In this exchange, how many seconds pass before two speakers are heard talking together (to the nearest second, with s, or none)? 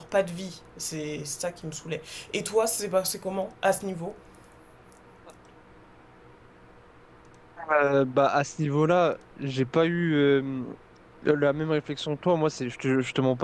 none